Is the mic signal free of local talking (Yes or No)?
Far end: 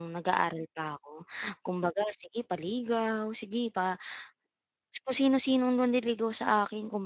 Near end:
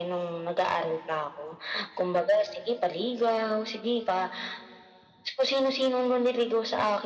Yes